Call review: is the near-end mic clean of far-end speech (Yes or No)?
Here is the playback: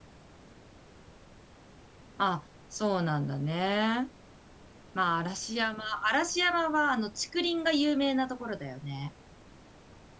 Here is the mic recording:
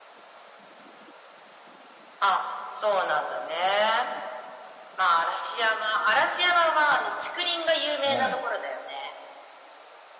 No